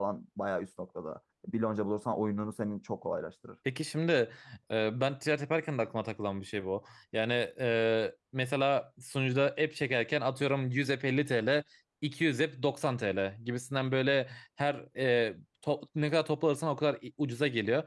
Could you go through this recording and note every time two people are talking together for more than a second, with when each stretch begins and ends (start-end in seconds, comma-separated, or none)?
none